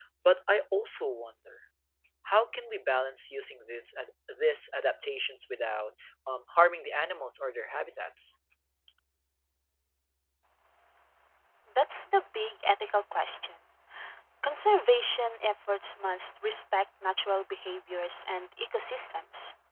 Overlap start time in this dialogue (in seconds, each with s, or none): none